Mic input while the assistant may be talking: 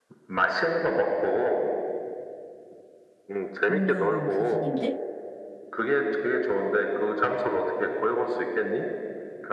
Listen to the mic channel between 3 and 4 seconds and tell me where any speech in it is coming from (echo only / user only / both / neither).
both